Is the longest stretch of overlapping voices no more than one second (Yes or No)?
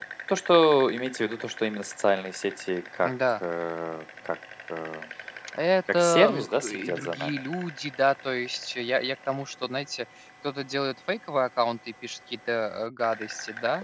No